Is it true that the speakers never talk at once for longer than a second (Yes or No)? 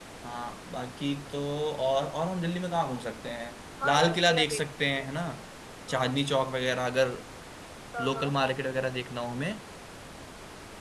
No